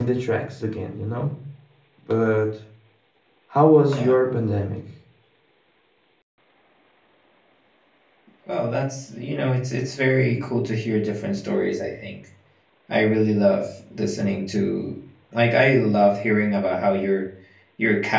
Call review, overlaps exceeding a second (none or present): none